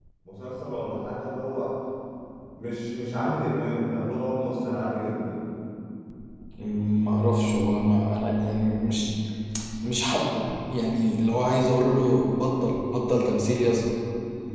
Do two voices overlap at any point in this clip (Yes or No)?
No